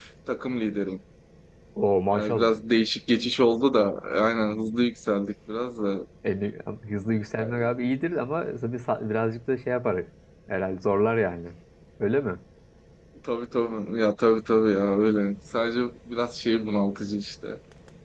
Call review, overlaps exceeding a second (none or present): none